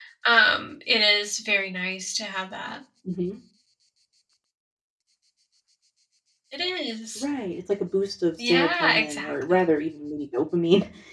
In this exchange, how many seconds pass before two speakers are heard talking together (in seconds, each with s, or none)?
8.4 s